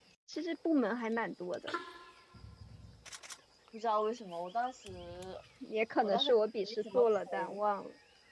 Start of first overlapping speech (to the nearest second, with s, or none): 6 s